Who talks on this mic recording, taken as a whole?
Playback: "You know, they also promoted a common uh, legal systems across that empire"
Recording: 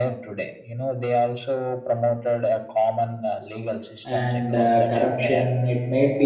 both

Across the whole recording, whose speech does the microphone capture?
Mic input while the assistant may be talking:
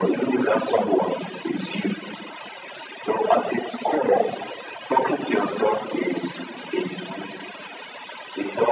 echo only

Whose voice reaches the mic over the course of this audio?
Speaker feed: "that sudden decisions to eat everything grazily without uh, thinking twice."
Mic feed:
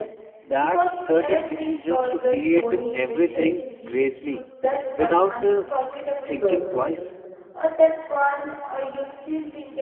both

